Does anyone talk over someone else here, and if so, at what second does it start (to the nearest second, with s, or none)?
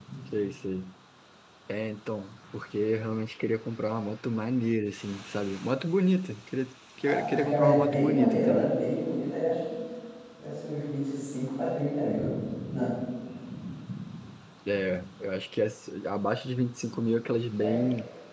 7 s